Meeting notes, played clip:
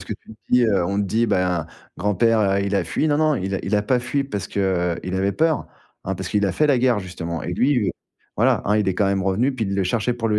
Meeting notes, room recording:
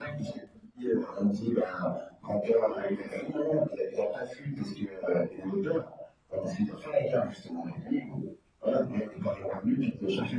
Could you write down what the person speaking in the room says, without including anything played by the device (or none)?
none